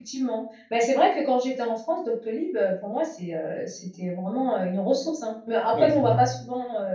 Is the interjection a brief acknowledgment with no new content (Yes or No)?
Yes